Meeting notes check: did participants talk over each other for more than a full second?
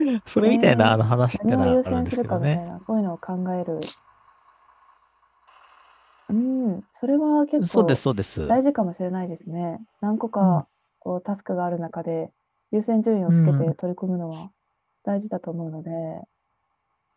Yes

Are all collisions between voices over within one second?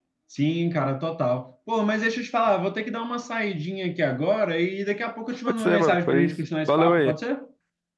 No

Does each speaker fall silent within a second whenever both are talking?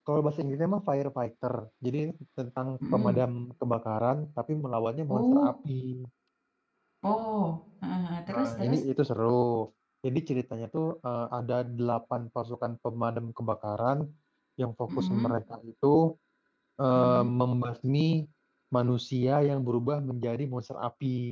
Yes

